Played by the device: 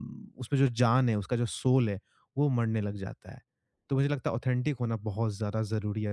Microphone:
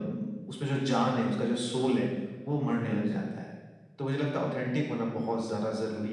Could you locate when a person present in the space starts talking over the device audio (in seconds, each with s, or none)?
none